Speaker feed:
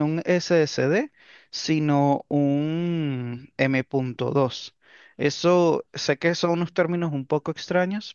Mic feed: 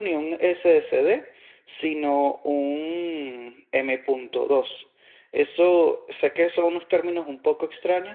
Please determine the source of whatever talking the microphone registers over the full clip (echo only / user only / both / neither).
echo only